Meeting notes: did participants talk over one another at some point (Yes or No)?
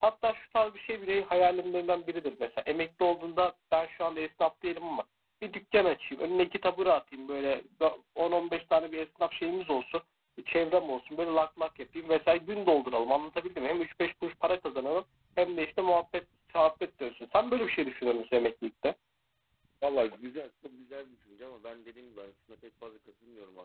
No